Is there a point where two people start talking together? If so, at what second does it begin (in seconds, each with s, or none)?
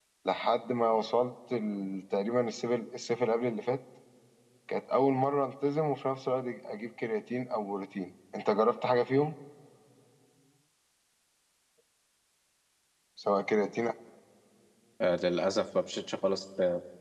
none